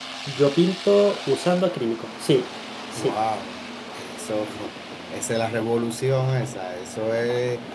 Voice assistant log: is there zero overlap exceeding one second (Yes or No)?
Yes